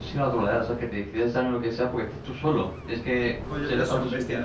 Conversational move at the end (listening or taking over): taking over